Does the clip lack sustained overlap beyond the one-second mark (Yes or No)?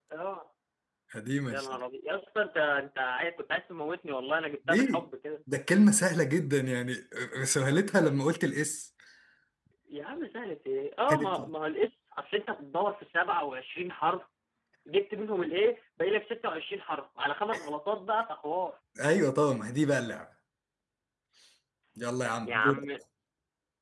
Yes